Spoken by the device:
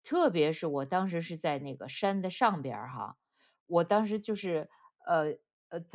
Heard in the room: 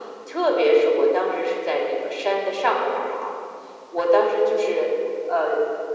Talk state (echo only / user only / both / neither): echo only